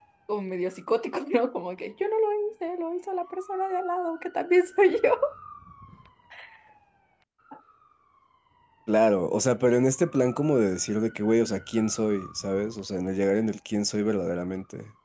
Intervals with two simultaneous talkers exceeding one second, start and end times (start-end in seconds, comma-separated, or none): none